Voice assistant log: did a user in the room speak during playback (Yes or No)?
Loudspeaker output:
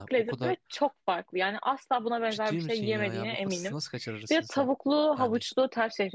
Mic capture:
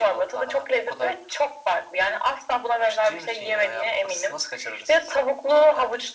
No